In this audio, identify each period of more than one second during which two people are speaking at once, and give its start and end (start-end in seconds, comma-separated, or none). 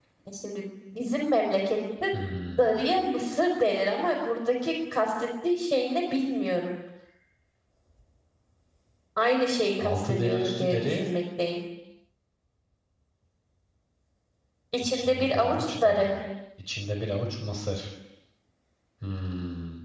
9.8-11.0, 14.8-16.1